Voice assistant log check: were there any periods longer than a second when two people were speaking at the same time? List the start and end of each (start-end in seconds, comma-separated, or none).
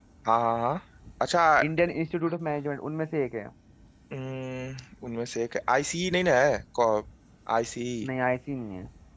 none